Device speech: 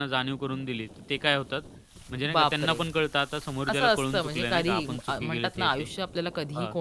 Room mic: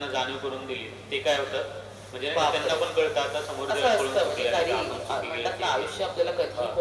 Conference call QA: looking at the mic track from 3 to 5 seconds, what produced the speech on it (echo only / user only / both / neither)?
echo only